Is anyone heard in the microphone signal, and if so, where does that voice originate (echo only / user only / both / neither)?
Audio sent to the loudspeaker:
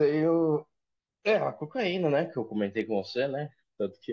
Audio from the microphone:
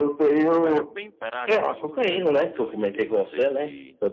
both